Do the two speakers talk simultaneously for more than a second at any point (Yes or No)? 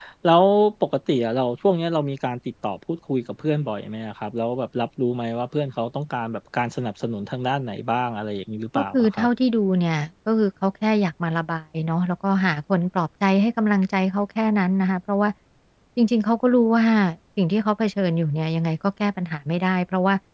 No